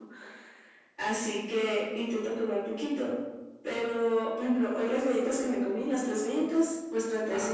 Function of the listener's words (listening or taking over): listening